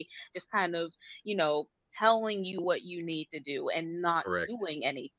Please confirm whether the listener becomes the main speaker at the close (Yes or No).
No